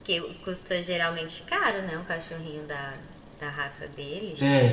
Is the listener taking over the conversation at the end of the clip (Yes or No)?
Yes